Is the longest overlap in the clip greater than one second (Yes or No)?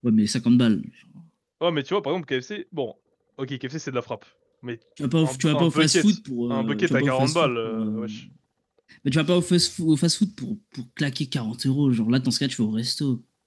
Yes